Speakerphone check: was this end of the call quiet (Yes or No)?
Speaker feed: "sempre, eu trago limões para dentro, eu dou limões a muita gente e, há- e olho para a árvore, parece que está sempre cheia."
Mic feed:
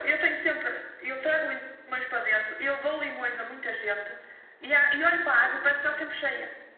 No